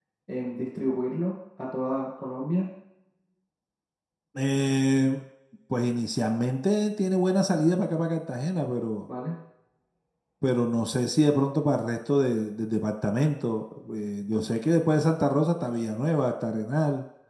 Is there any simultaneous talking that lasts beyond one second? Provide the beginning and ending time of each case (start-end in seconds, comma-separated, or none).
none